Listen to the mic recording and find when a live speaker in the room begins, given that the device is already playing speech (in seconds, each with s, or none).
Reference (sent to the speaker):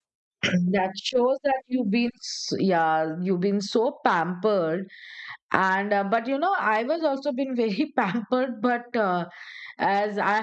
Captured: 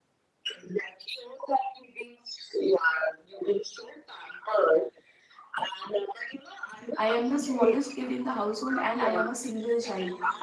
7.0 s